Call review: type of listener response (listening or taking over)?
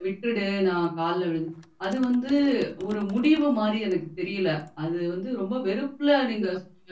listening